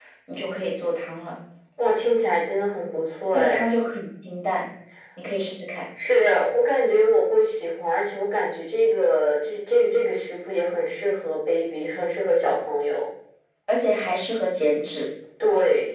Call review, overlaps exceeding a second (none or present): none